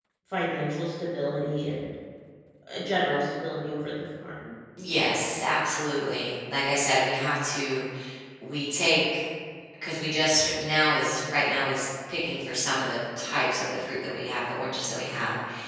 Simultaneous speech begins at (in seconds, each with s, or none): none